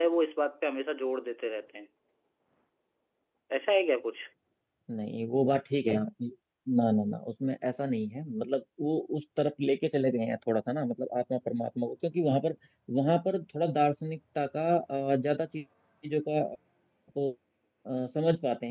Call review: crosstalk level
none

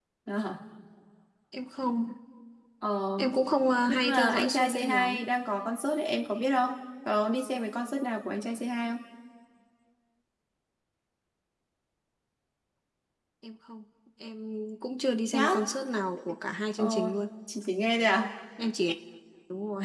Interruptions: present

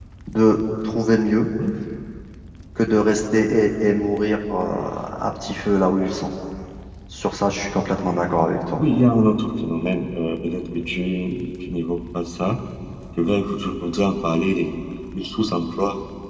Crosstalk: none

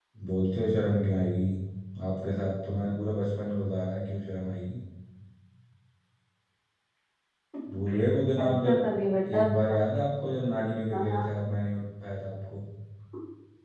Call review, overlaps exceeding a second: none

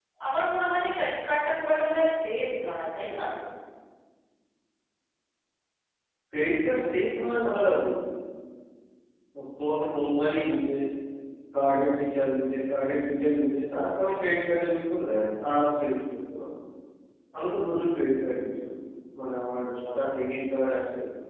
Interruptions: none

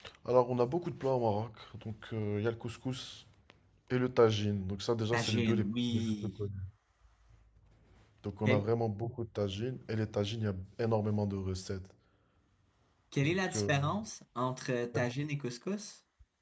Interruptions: present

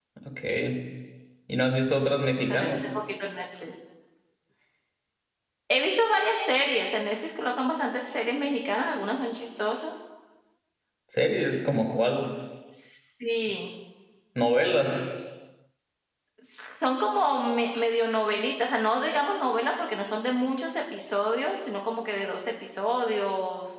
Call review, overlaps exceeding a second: none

